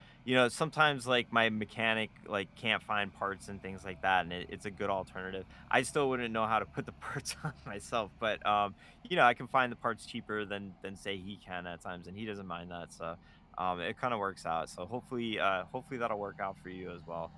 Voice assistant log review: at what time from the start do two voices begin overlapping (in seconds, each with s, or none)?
none